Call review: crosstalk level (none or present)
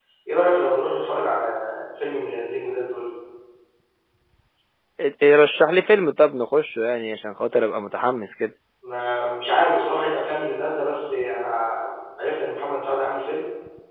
none